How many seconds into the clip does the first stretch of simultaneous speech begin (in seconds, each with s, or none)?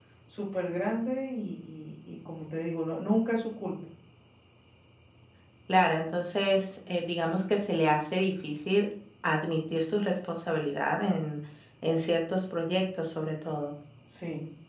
none